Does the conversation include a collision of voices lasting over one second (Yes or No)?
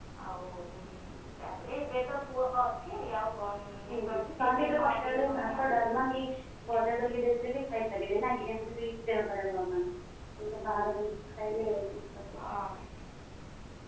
Yes